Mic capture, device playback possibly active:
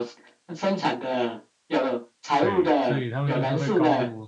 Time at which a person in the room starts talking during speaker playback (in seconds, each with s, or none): 2.4 s